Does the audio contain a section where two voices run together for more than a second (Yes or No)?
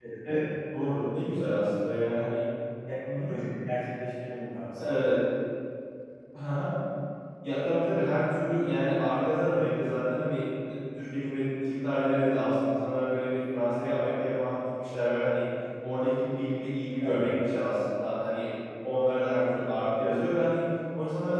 No